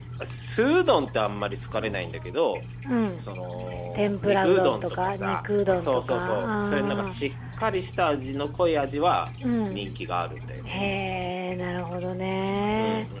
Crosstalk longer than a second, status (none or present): present